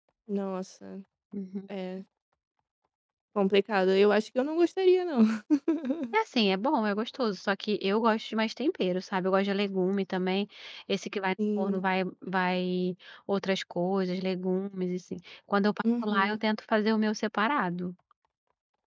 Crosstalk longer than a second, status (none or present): none